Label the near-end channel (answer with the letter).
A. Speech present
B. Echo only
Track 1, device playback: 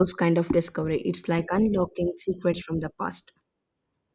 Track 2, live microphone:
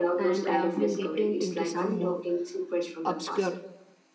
A